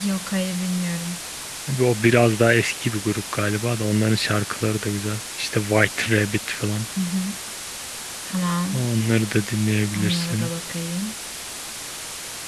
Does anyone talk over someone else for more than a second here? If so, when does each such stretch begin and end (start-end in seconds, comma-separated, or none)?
none